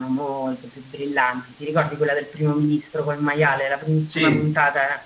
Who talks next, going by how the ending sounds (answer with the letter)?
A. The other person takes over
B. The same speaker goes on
B